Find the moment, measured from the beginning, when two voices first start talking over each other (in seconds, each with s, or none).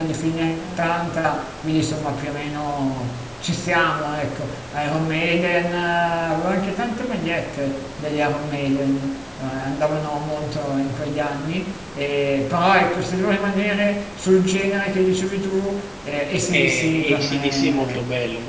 16.5 s